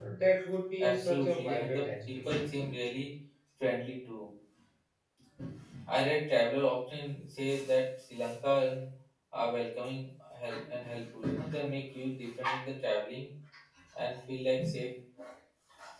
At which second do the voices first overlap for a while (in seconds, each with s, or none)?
0.8 s